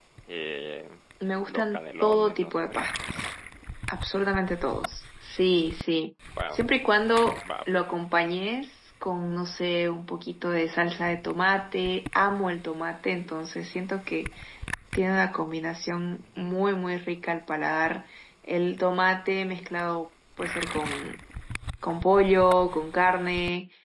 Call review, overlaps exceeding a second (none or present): present